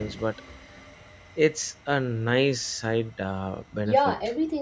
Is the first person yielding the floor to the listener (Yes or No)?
Yes